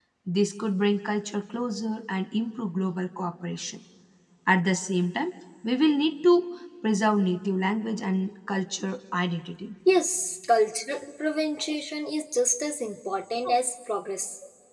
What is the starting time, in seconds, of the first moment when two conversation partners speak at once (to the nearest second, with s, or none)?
none